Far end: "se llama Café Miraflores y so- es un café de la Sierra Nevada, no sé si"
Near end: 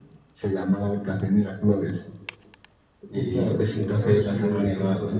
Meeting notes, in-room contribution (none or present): present